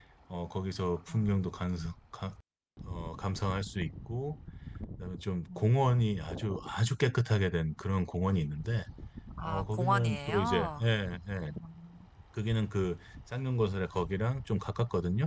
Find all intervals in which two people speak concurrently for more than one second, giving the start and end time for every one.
9.4-10.8

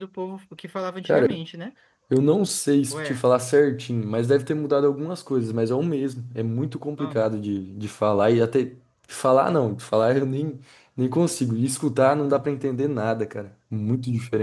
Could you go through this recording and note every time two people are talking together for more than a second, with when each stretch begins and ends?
none

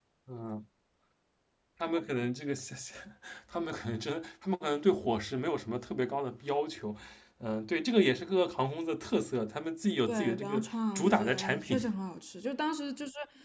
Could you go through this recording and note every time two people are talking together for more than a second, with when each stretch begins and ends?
10.1-11.8

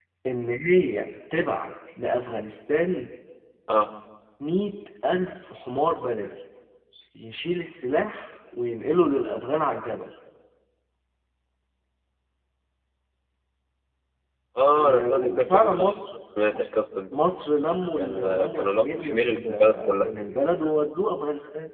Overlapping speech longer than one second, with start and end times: 14.7-15.9, 18.0-20.1

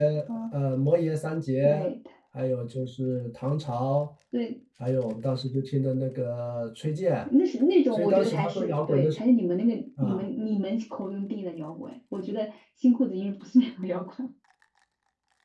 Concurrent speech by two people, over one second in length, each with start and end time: 7.9-9.2

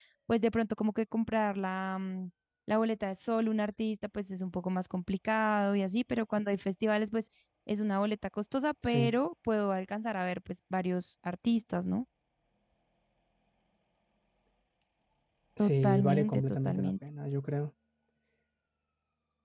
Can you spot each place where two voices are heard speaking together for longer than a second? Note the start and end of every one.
15.6-16.9

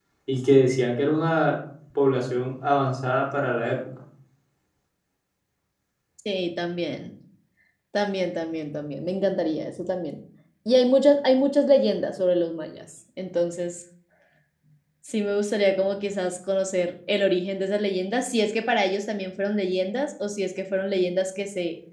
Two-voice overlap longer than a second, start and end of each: none

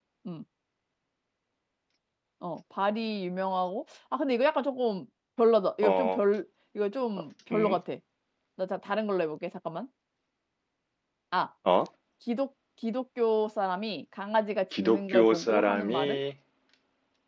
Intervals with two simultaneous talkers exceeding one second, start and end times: 14.8-16.2

